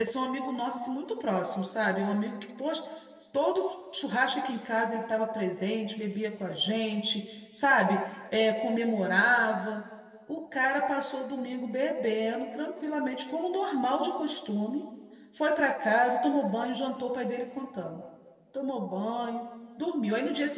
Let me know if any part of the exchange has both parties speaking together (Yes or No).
No